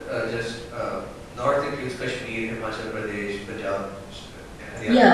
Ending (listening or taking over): taking over